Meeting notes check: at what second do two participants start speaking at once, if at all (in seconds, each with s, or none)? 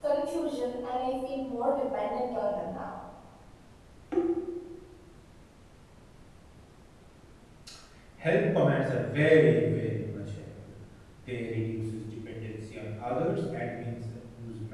none